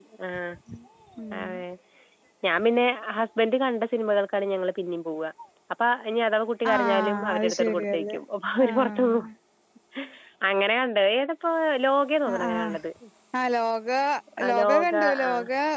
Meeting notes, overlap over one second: present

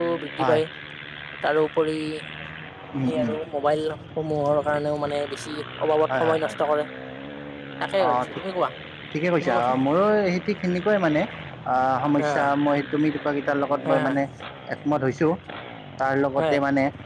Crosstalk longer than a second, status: none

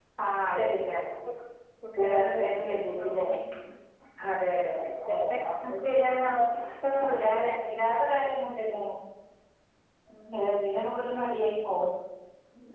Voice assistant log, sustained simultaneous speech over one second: present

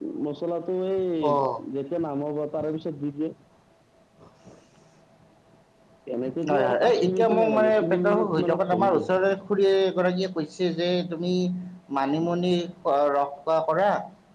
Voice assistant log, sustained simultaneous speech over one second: present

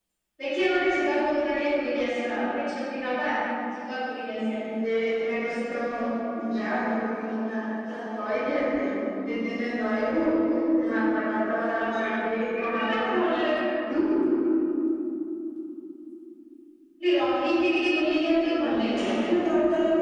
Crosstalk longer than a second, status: none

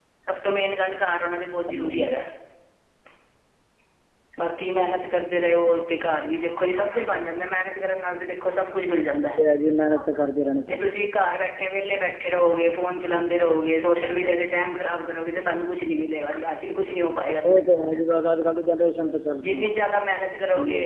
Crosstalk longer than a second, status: none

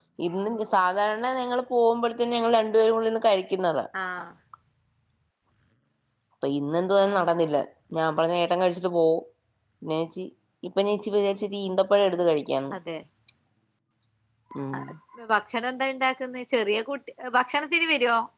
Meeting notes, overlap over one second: none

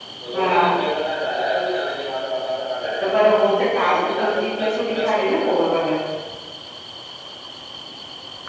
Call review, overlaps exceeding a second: present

